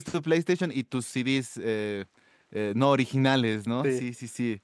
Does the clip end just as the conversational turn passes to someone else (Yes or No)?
No